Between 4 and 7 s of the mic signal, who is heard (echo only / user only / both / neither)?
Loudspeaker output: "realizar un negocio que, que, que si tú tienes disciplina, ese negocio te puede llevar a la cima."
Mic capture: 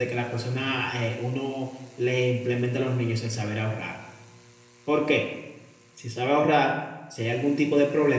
user only